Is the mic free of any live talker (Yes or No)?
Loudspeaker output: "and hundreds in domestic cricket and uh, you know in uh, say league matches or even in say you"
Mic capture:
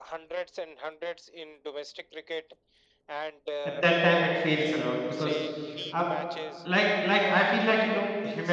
No